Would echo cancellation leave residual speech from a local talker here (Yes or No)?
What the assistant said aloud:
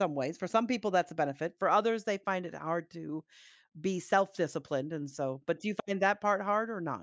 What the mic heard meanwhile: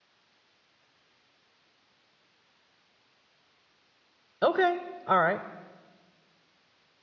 Yes